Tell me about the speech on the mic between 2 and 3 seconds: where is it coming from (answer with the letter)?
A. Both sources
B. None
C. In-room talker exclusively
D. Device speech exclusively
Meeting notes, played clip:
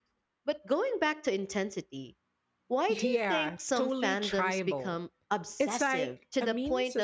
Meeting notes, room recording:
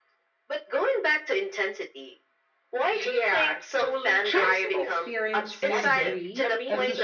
D